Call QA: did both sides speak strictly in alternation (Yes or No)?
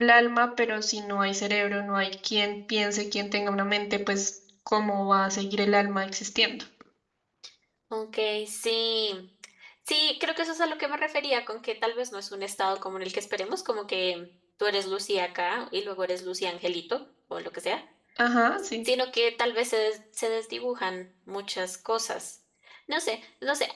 Yes